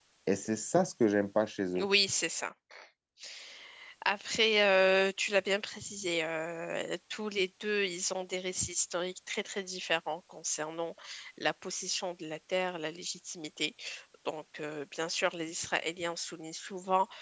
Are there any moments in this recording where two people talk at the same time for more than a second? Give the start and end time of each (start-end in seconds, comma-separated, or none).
none